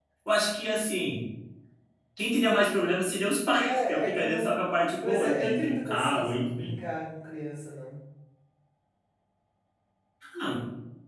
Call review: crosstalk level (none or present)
present